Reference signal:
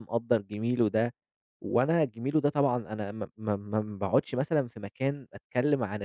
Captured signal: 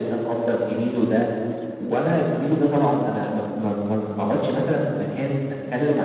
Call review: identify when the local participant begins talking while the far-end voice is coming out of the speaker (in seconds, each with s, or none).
none